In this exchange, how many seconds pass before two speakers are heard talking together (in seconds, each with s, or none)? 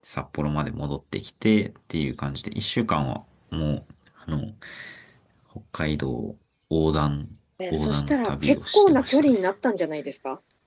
7.7 s